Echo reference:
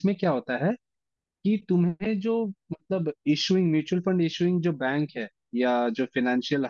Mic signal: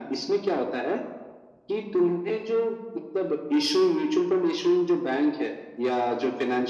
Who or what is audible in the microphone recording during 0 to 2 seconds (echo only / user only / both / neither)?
echo only